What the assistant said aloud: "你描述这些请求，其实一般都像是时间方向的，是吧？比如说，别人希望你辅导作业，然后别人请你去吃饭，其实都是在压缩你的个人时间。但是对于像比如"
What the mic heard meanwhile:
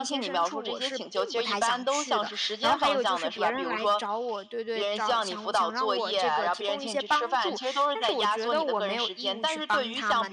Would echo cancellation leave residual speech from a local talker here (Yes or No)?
Yes